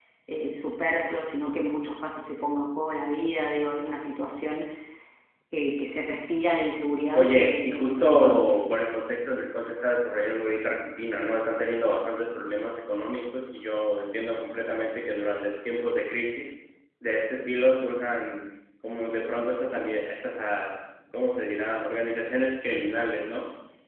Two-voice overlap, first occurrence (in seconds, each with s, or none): 7.2 s